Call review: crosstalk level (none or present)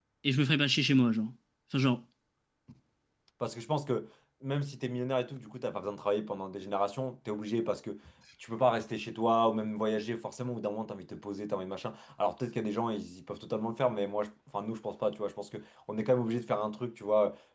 none